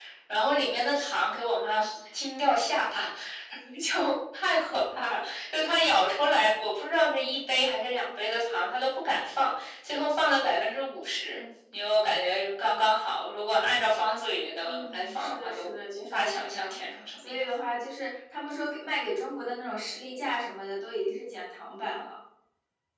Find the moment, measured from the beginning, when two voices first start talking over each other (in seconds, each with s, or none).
14.6 s